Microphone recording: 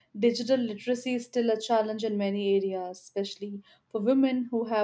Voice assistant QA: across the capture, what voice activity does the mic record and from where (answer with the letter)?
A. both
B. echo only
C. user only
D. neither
C